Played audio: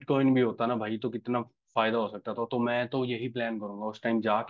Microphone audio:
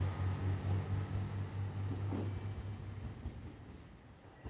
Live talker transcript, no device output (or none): none